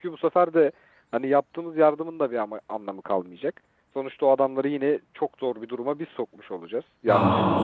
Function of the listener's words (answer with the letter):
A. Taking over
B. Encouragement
A